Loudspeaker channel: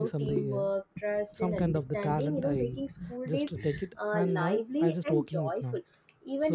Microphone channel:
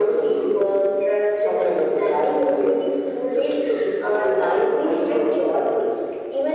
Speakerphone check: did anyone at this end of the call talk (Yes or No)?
No